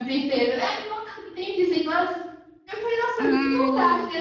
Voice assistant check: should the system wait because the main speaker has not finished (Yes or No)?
Yes